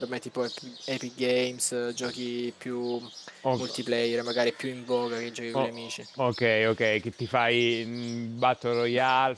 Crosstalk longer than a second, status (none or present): none